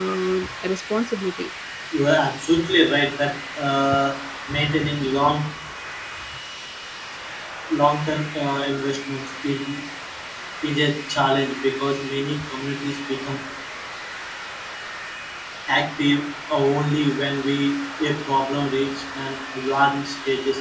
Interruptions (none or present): none